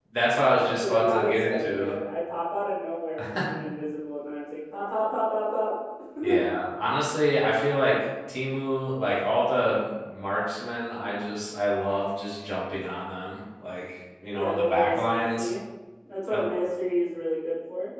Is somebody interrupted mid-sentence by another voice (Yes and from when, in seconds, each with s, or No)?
Yes, from 0.6 s